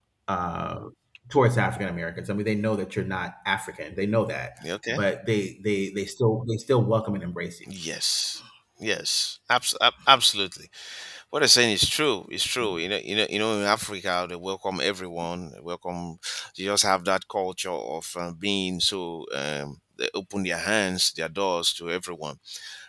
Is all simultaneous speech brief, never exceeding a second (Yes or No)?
Yes